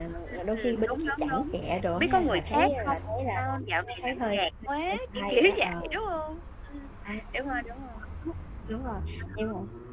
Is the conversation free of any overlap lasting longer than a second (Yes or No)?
No